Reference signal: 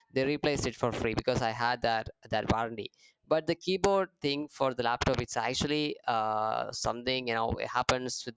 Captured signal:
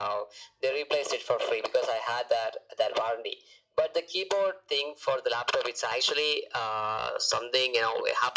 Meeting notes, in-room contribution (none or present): none